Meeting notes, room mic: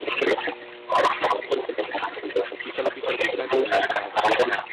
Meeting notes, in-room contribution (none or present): present